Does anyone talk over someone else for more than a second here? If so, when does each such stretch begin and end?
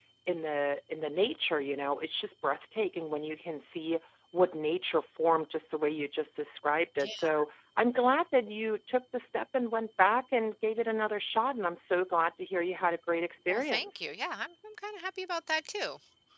none

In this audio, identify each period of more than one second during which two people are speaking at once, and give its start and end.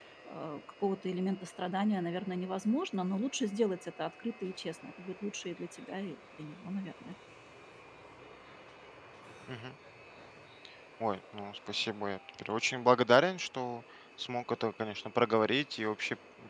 none

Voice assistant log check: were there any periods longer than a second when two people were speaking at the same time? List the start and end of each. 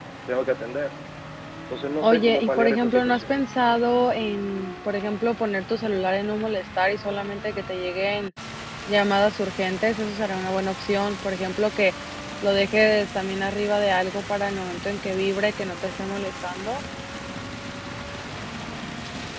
2.0-3.3

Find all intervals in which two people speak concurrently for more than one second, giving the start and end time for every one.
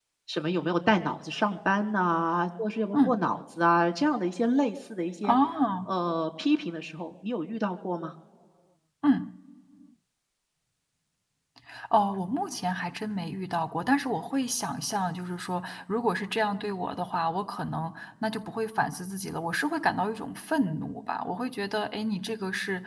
none

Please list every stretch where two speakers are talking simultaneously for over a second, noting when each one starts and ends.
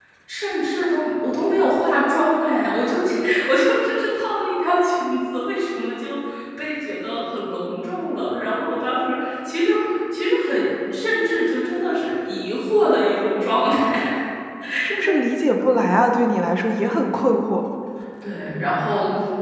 none

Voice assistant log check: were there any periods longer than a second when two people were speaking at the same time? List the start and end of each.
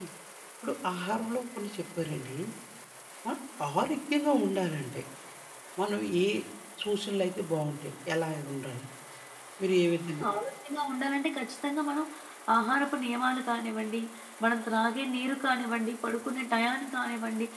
none

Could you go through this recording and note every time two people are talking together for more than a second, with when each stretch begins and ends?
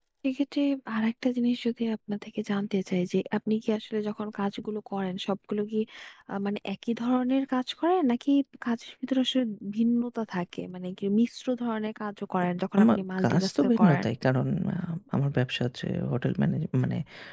12.8-14.1

